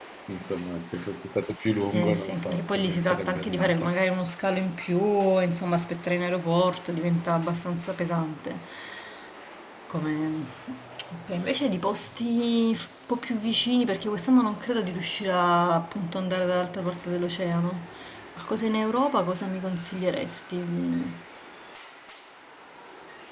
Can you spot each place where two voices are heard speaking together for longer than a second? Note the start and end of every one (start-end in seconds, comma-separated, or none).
1.9-3.9